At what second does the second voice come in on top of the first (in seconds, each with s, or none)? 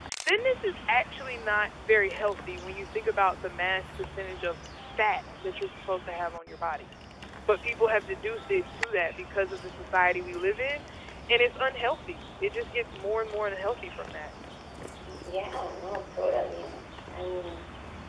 none